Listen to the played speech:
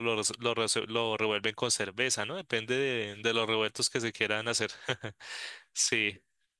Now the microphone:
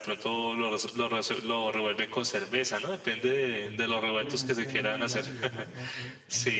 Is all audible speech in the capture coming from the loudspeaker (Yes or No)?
No